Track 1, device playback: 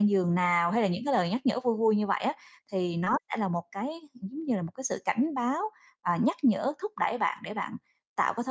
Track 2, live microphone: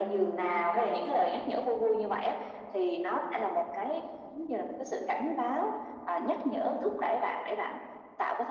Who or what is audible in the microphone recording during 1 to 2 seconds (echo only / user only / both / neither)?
echo only